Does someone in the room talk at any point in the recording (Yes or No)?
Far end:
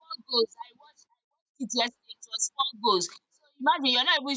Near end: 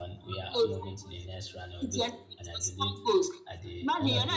Yes